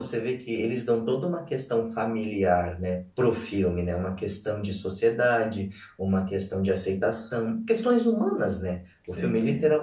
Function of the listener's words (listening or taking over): listening